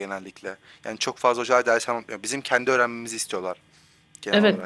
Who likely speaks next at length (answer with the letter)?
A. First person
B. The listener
B